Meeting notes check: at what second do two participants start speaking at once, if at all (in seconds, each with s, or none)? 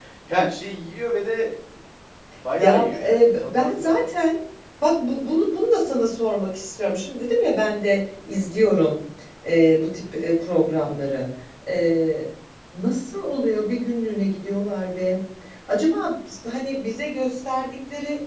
2.6 s